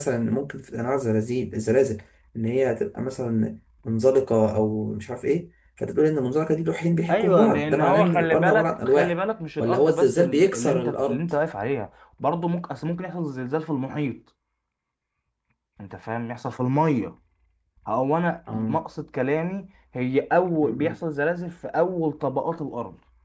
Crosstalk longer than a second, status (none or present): present